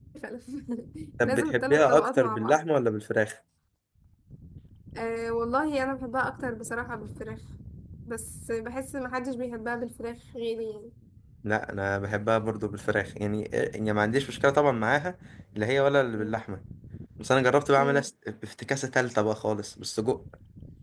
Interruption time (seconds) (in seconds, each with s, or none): 1.2 s